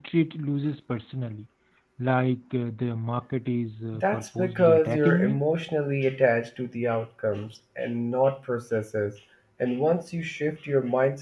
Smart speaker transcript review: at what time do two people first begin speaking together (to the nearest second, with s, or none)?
4 s